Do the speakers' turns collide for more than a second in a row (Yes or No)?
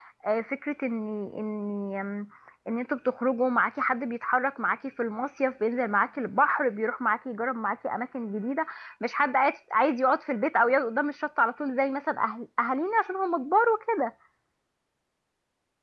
No